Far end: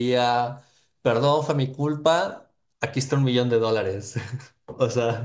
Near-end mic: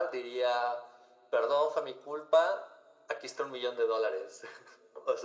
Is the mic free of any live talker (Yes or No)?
Yes